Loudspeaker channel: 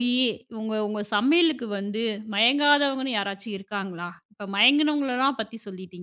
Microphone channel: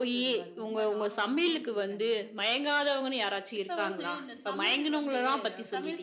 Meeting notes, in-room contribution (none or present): present